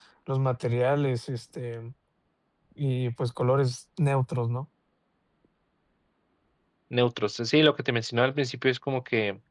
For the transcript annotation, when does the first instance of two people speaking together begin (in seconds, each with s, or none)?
none